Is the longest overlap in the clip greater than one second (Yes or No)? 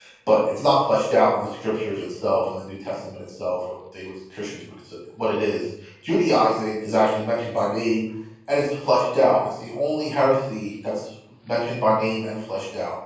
No